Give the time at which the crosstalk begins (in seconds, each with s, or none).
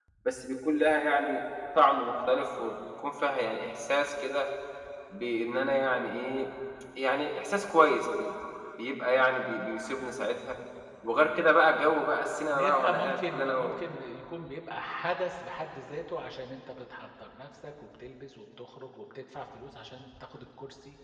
12.5 s